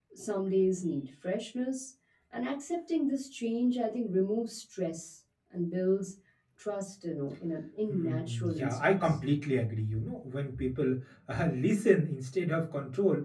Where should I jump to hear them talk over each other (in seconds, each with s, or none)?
7.9 s